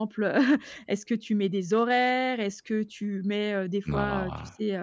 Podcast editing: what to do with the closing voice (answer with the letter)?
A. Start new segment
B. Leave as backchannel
B